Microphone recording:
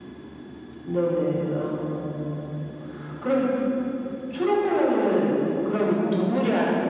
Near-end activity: present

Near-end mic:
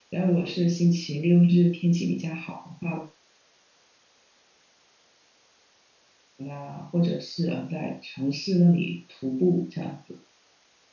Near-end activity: present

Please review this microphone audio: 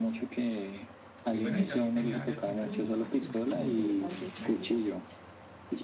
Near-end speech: present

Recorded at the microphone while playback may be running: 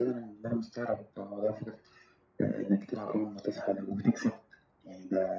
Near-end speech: none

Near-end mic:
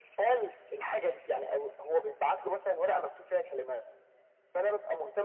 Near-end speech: none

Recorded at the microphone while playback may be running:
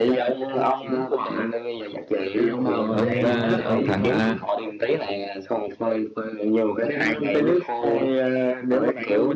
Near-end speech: present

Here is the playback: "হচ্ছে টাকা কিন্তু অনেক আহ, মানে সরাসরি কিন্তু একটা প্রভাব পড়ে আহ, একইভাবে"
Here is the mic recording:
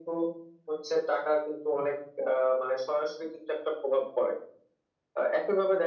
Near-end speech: none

